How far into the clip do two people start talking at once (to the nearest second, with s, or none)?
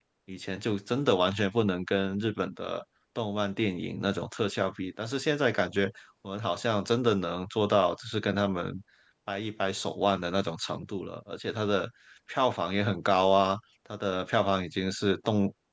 none